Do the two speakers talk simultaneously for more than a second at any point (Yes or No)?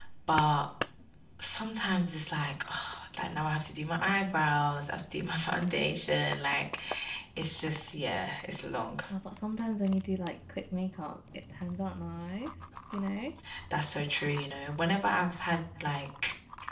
No